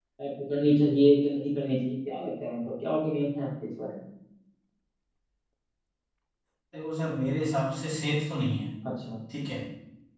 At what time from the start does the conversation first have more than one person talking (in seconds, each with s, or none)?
none